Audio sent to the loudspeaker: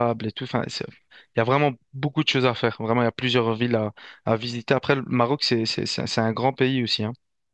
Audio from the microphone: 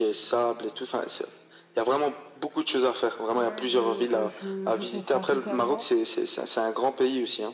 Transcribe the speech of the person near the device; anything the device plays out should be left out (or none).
Ouais, je, euh, je, je comprends totalement.